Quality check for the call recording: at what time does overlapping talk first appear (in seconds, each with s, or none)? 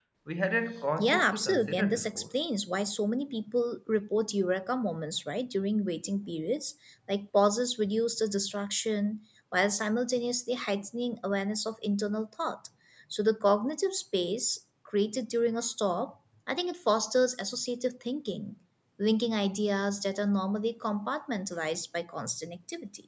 1.0 s